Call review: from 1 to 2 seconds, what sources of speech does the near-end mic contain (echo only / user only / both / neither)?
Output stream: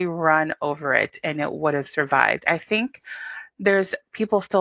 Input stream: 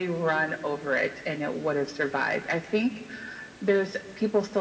echo only